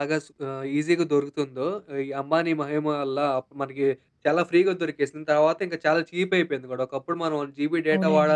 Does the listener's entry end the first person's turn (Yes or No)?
Yes